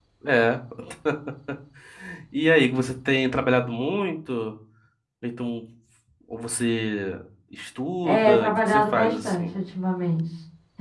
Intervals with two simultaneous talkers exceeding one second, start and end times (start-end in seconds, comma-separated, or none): 8.0-9.5